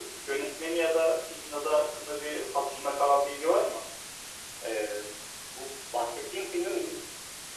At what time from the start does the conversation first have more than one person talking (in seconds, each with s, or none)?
none